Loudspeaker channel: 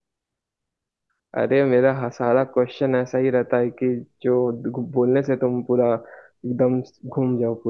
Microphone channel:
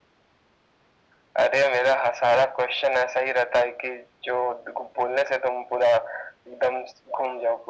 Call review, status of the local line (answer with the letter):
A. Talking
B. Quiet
B